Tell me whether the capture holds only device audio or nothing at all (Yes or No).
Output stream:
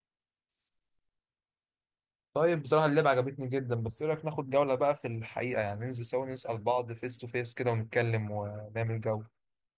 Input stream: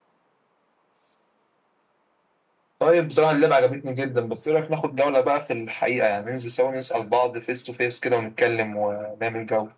Yes